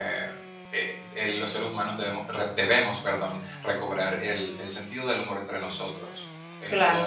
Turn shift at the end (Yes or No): Yes